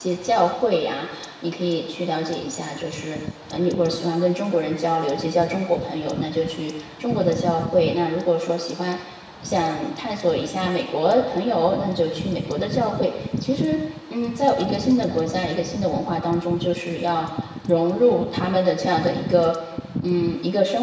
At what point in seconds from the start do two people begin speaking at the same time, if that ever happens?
none

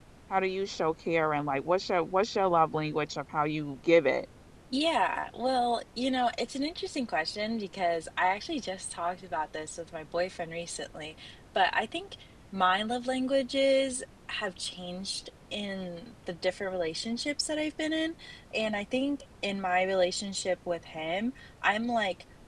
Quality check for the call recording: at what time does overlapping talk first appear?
none

